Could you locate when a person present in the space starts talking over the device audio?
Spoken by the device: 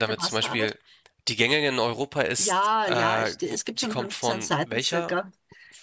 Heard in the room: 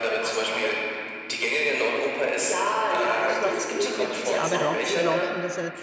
3.2 s

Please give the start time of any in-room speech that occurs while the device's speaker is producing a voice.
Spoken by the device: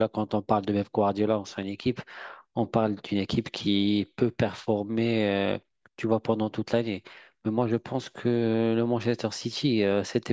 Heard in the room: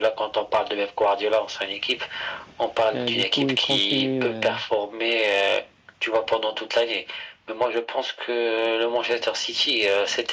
2.9 s

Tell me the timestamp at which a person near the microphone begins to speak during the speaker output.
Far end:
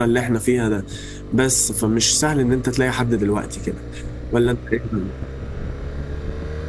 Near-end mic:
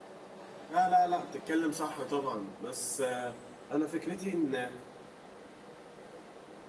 0.7 s

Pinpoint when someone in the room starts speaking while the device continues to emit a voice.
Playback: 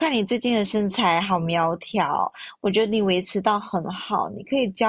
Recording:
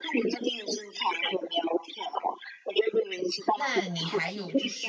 3.5 s

